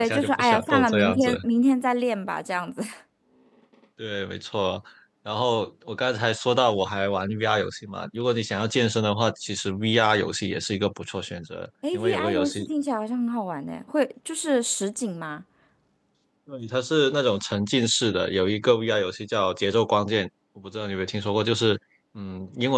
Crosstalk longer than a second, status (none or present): present